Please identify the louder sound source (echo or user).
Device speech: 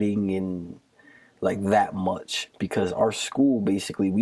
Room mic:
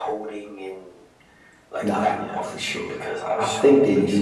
user